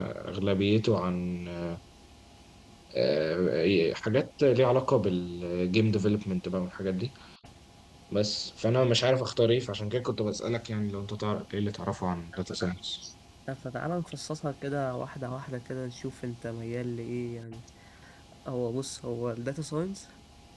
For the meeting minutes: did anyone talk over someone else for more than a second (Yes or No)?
No